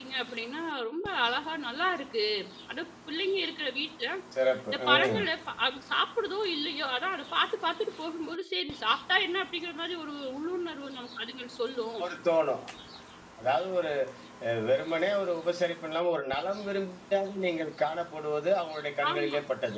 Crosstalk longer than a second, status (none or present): none